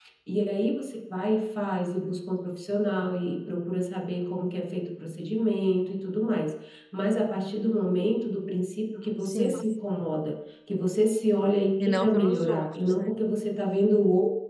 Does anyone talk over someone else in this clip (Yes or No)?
Yes